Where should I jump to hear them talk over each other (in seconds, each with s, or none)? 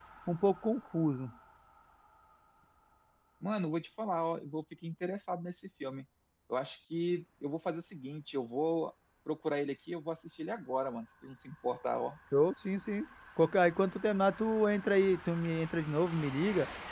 none